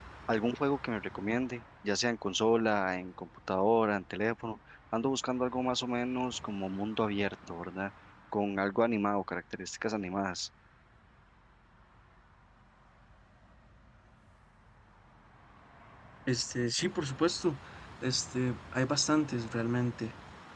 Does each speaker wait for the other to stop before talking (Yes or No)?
Yes